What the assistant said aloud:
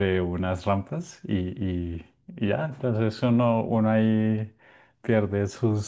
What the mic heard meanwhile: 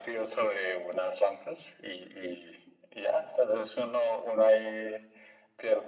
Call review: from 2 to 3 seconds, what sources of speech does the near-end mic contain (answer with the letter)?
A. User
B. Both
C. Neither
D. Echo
D